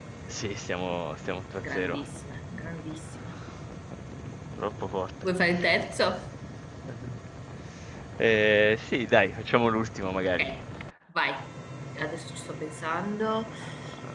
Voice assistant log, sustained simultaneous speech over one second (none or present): none